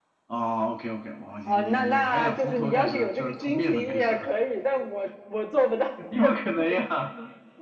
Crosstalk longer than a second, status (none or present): present